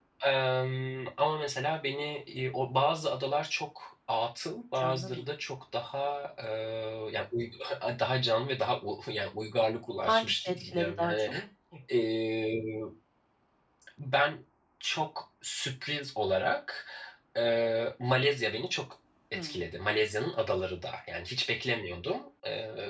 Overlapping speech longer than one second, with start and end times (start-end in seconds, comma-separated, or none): 10.0-11.3